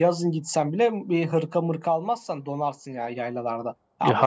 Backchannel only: No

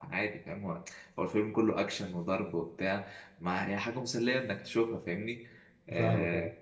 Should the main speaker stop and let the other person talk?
No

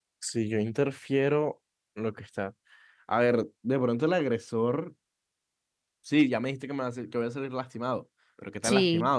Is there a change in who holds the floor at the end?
No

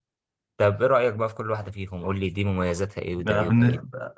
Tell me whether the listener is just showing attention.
No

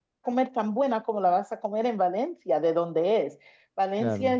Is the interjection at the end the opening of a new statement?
No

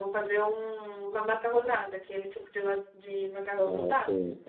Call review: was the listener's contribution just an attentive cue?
No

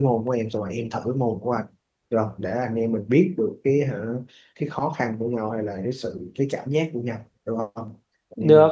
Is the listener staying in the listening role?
No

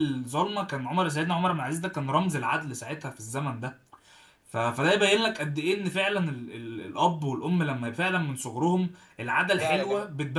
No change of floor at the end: No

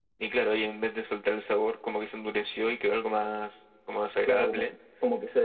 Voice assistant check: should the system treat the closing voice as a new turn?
Yes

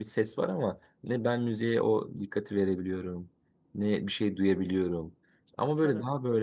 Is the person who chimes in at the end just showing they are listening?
Yes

